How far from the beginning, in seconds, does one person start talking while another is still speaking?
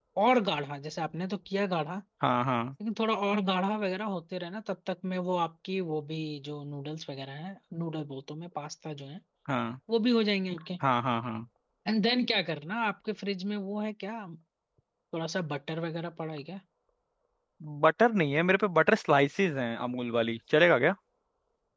none

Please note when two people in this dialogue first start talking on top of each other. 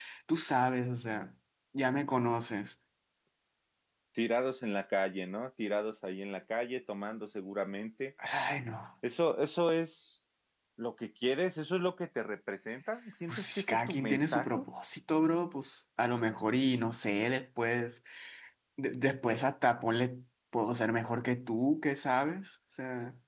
13.3 s

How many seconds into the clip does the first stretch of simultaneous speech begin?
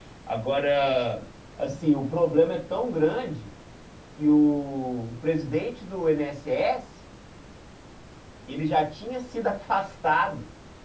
none

